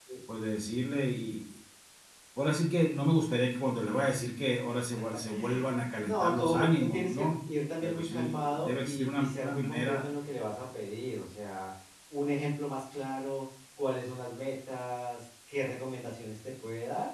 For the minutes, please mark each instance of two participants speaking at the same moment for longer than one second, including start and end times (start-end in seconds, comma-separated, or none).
6.0-7.3, 7.8-10.0